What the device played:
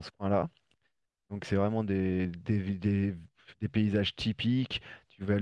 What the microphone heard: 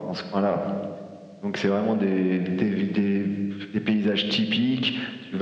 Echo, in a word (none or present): present